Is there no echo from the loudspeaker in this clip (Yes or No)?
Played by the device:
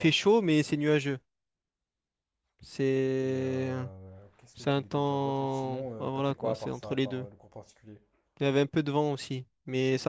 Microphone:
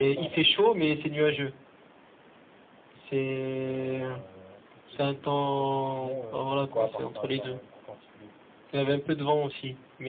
No